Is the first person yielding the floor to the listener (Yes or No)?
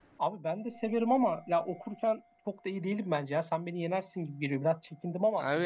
Yes